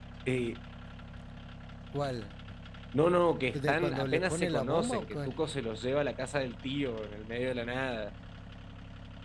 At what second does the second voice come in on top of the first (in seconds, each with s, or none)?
3.5 s